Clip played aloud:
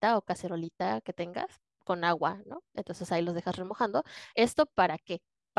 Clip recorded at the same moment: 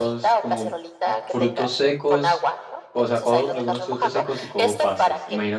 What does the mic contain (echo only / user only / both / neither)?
both